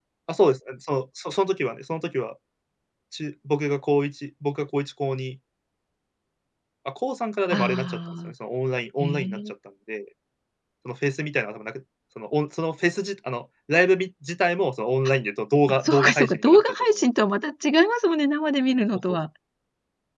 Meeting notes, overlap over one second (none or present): present